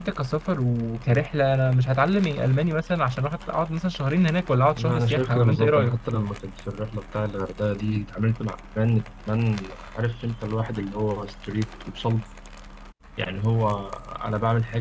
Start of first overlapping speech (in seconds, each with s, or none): 4.7 s